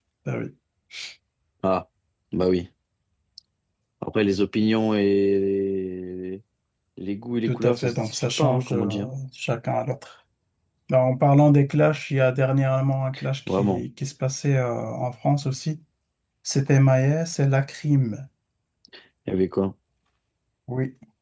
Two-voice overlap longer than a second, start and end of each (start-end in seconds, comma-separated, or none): 7.5-8.9